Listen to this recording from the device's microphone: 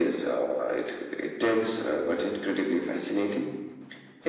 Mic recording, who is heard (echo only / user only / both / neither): echo only